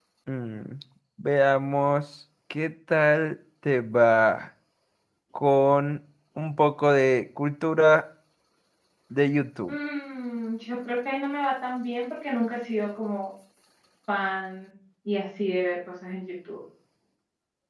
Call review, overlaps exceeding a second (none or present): none